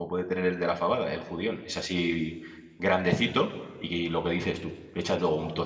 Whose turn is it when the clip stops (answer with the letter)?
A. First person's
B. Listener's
A